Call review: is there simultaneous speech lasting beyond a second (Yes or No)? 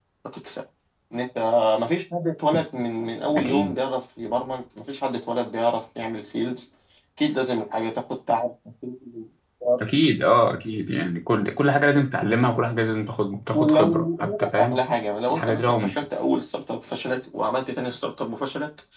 Yes